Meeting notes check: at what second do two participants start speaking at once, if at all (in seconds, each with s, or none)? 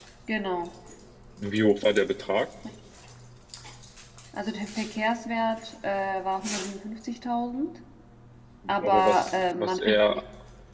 8.8 s